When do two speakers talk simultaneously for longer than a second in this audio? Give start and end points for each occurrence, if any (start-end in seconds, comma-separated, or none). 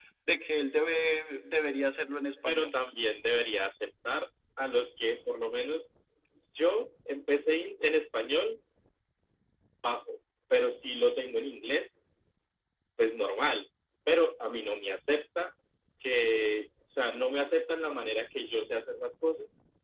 none